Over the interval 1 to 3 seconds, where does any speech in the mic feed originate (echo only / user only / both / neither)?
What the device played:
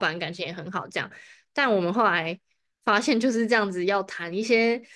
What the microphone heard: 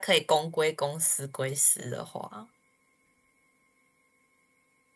user only